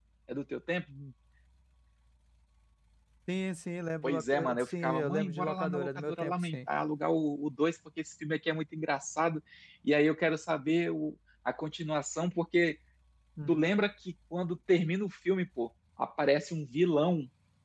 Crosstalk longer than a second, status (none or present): present